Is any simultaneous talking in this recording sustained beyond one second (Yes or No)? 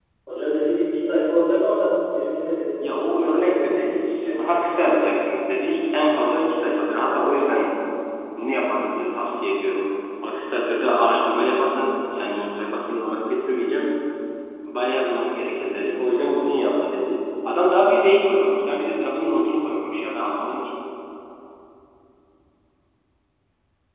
Yes